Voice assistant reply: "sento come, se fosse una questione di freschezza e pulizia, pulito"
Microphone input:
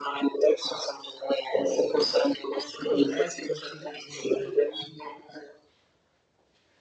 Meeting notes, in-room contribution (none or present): present